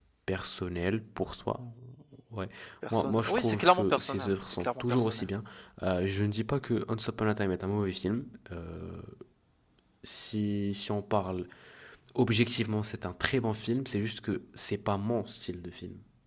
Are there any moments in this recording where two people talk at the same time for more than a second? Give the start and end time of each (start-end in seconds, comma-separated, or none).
2.9-5.2